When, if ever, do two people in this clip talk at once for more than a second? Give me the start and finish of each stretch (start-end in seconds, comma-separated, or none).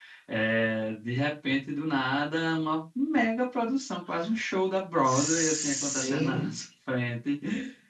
5.1-6.6